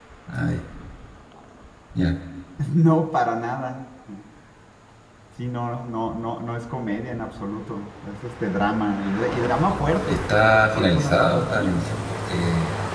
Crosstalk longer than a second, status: present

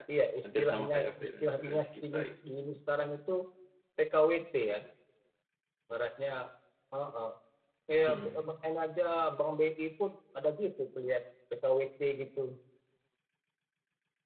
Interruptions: present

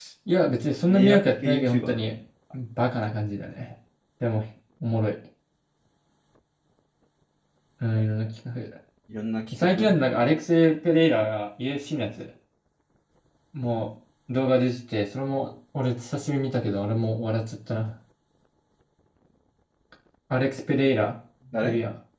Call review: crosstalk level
present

